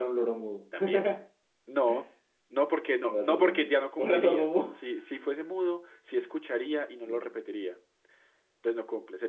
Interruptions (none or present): present